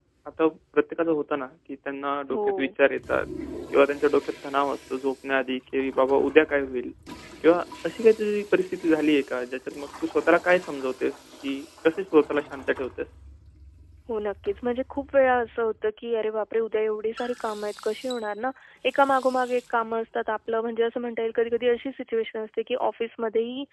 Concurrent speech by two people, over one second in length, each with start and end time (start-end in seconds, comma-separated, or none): none